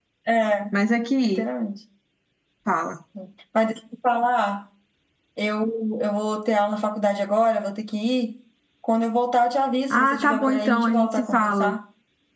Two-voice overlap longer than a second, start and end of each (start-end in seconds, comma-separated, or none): 9.9-11.7